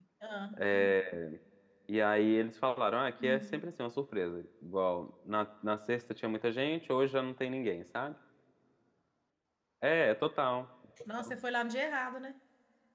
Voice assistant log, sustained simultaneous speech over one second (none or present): none